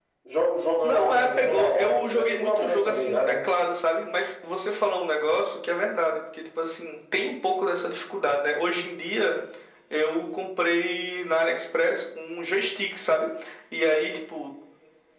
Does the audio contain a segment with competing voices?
Yes, from 0.8 s

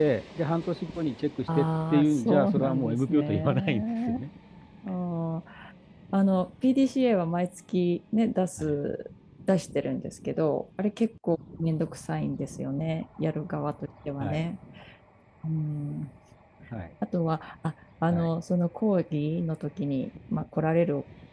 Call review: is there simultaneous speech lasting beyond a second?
Yes, from 1.6 s

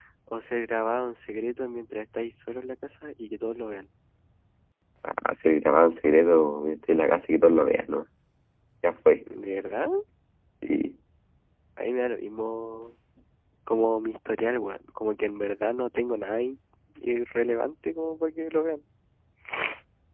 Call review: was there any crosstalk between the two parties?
No

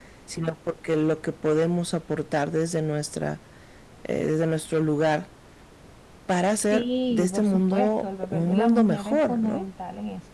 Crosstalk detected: Yes, from 6.7 s

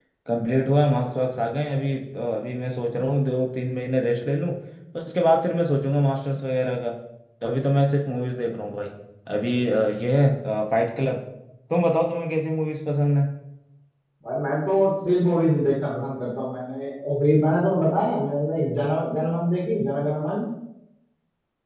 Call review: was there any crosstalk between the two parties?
No

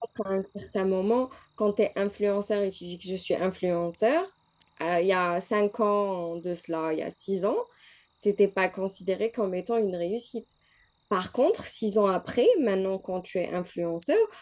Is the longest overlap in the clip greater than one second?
No

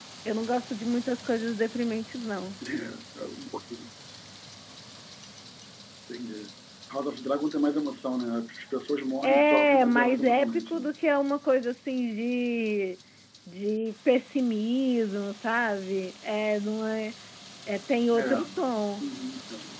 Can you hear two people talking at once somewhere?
Yes, from 9.2 s

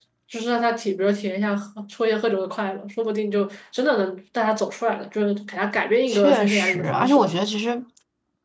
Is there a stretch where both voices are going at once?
Yes, from 6.1 s

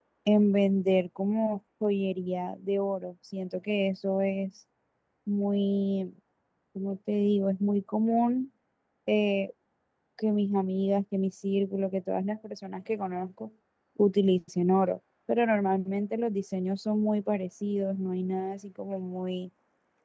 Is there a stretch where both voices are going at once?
No

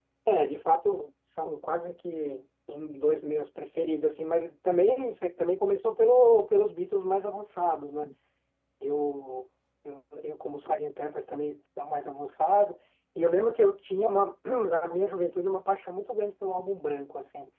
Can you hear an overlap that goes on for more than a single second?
No

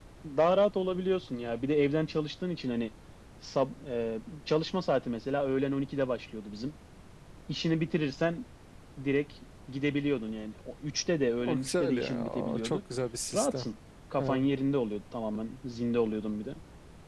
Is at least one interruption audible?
Yes, from 11.4 s

